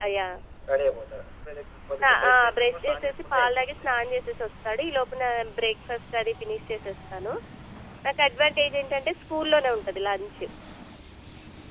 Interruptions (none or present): present